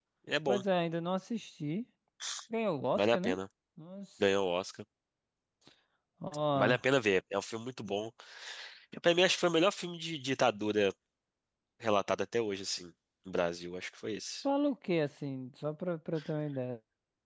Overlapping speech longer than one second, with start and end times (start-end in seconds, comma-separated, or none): none